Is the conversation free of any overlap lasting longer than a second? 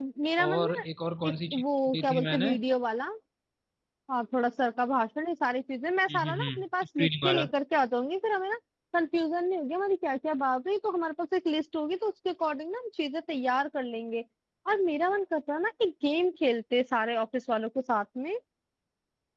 No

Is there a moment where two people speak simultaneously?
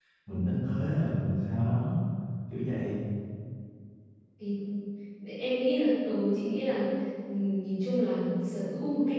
No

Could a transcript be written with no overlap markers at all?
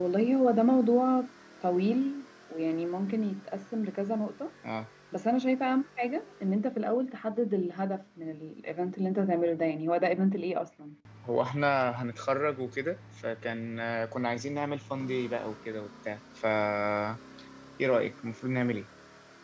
Yes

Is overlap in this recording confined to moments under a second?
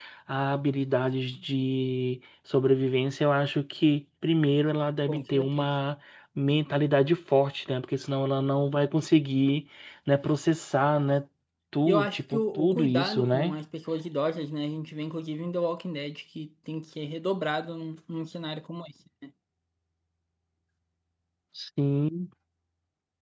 No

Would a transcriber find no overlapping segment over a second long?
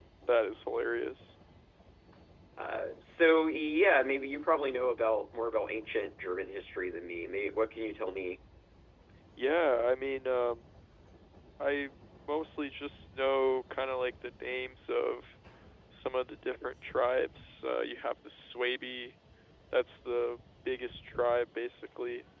Yes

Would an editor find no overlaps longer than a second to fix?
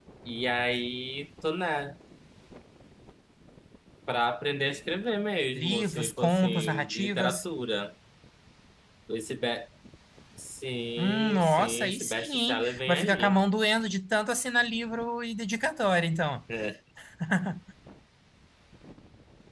No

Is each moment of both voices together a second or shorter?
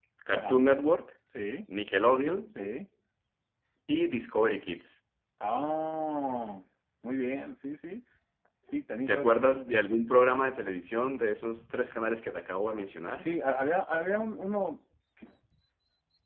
Yes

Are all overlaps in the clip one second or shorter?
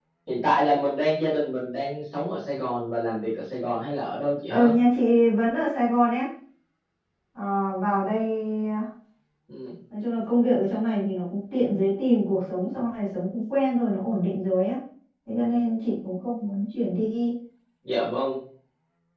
Yes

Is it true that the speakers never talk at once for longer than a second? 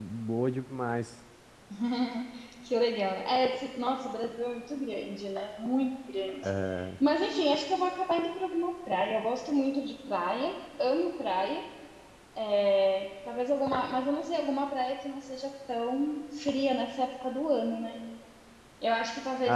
Yes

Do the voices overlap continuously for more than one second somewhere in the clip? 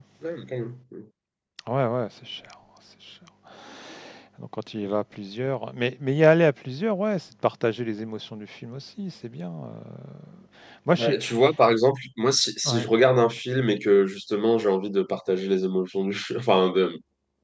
No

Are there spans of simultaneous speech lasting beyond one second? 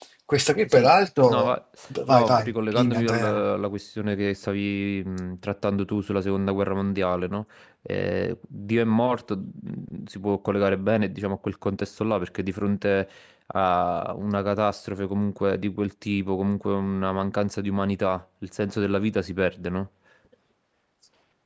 Yes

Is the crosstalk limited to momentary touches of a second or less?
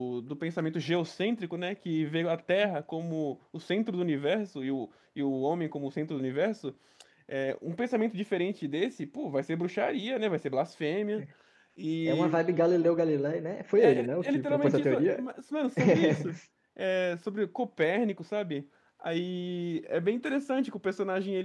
No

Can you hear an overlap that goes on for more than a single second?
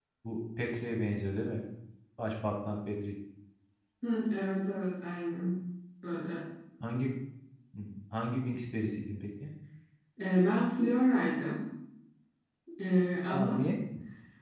No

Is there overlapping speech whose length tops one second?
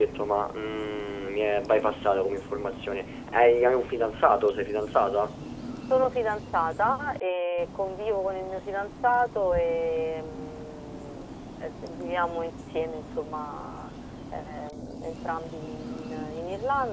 No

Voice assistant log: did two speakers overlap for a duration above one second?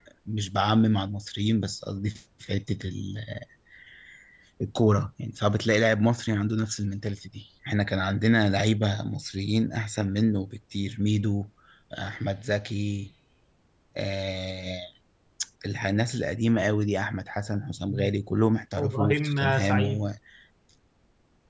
Yes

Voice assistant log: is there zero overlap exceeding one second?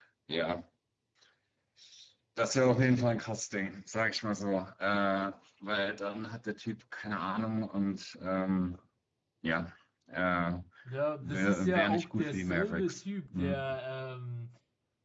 No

